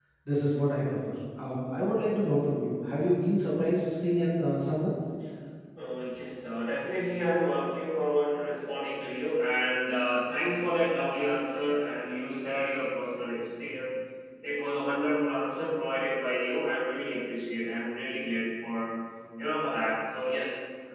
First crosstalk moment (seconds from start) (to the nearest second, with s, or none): none